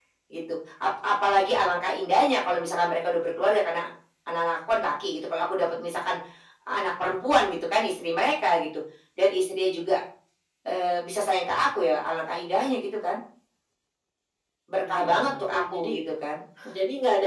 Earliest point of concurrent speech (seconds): 14.8 s

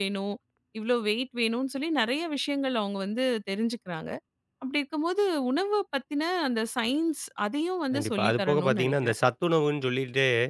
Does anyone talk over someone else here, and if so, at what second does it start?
7.9 s

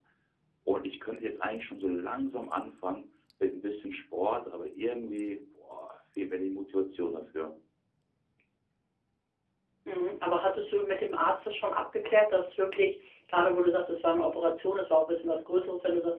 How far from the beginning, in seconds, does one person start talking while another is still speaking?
none

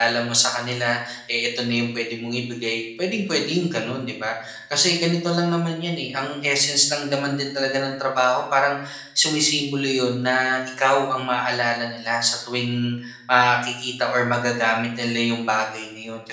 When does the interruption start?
none

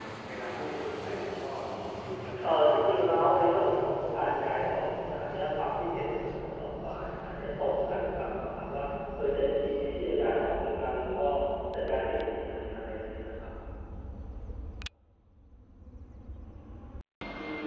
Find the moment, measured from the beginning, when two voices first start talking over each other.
2.4 s

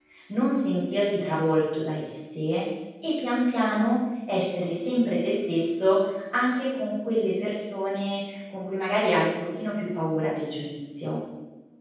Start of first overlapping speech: none

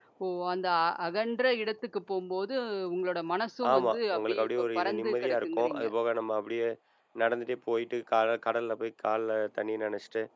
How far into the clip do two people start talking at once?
3.7 s

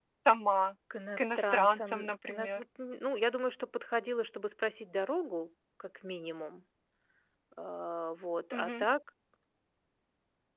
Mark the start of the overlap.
1.2 s

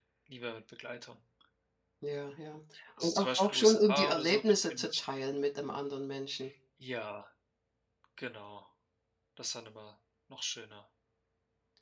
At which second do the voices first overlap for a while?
3.0 s

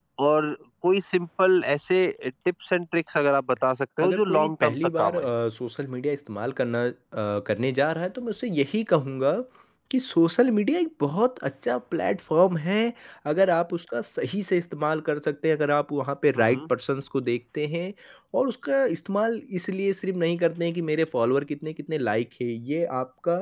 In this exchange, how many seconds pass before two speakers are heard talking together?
4.0 s

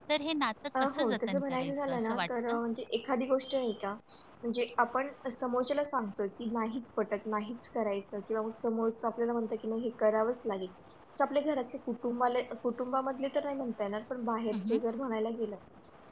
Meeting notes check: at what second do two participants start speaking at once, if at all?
0.8 s

